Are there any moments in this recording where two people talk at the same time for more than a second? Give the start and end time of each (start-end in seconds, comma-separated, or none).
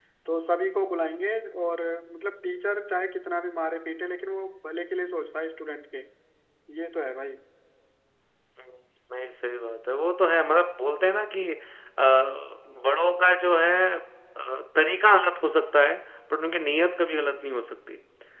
none